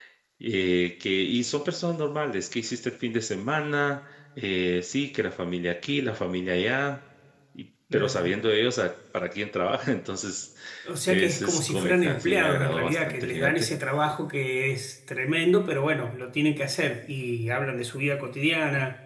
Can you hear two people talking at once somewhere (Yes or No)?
Yes